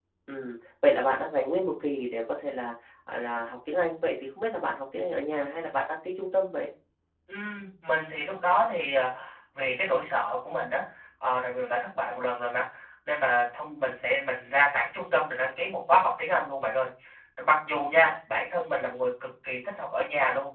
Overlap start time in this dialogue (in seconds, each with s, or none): none